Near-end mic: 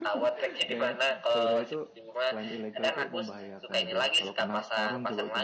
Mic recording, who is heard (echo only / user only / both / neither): both